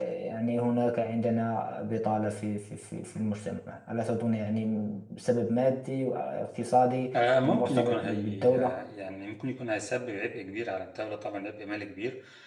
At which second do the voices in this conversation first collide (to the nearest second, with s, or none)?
7 s